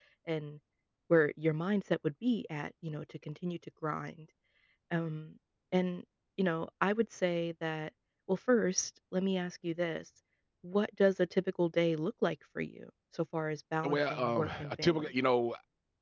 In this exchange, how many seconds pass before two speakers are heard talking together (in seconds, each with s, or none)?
13.8 s